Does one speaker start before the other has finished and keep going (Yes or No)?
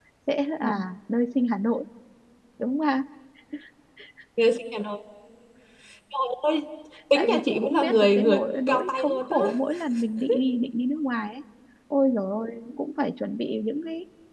Yes